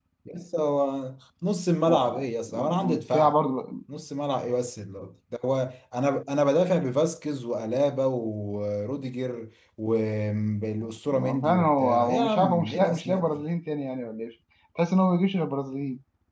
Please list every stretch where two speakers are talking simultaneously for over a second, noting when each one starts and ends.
1.9-3.4, 11.1-13.4

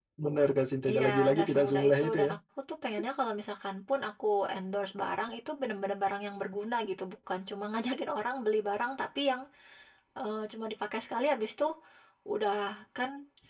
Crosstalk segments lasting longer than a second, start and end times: 0.9-2.3

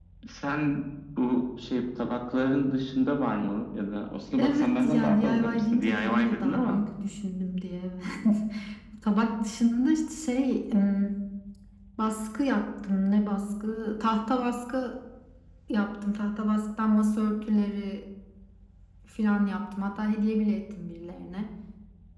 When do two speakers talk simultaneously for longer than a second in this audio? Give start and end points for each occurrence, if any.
4.4-6.8

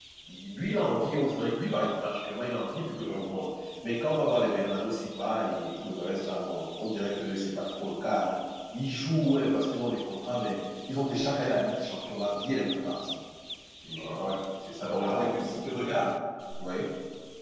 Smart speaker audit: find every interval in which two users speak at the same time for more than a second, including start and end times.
none

